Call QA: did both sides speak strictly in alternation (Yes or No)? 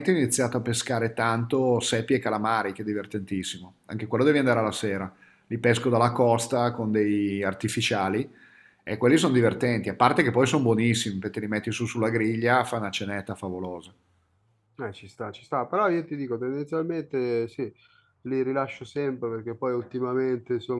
Yes